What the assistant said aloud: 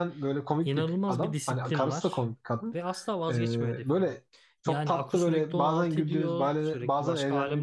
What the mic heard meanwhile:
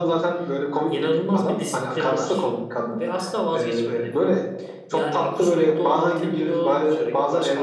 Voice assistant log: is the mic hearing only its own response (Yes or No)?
Yes